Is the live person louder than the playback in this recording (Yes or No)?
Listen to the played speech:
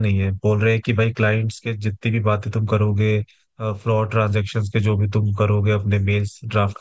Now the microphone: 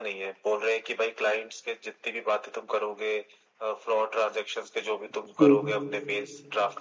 Yes